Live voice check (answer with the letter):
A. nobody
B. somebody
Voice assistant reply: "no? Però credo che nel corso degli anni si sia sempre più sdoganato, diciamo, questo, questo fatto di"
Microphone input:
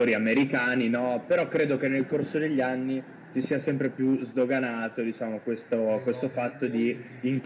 B